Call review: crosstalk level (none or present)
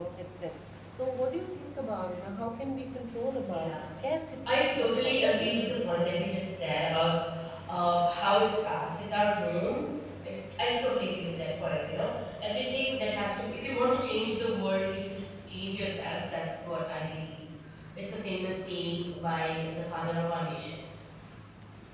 present